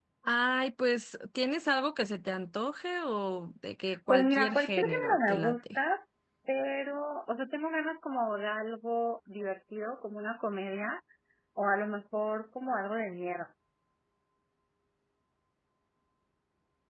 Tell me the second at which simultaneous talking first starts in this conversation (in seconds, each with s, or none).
3.9 s